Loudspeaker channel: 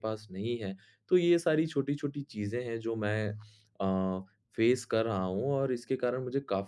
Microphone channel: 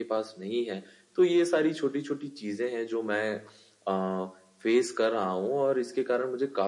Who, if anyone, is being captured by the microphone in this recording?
echo only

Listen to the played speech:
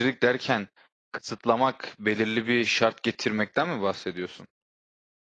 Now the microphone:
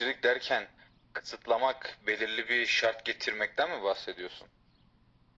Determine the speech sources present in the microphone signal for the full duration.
echo only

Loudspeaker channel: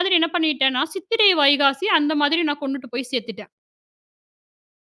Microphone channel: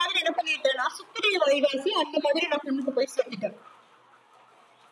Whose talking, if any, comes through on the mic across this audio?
echo only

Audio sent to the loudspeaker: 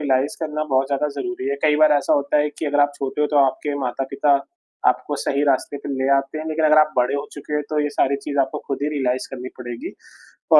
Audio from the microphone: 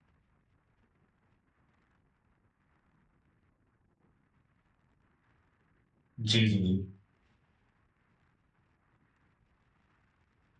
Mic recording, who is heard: user only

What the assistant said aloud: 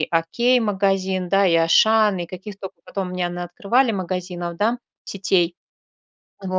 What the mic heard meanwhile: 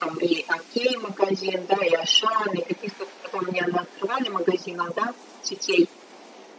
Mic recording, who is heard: echo only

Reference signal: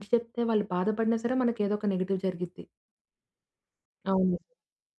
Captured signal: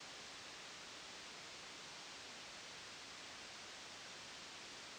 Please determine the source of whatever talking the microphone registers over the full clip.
neither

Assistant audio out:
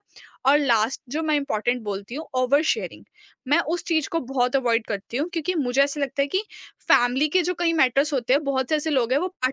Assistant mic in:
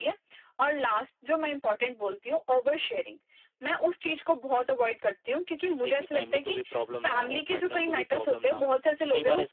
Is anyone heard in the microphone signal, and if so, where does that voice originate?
both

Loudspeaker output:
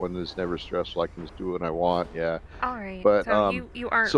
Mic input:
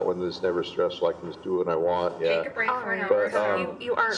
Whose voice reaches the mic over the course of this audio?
both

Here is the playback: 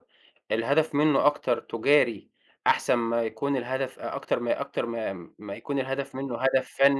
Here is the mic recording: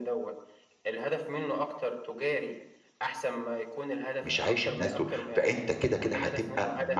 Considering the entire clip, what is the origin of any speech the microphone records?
both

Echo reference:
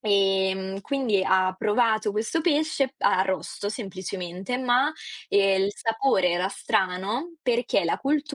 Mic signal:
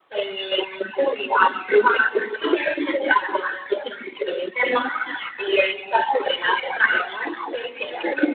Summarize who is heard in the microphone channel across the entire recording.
echo only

